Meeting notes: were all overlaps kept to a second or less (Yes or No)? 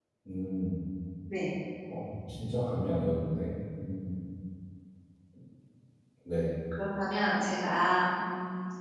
Yes